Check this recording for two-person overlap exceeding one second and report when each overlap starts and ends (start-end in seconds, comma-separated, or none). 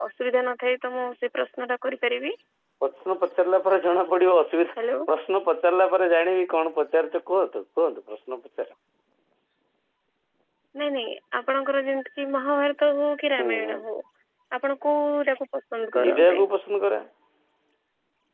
none